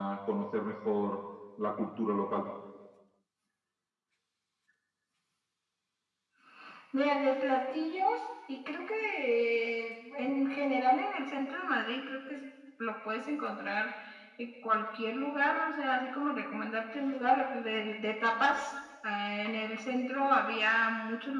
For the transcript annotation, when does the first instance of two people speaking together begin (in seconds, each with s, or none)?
none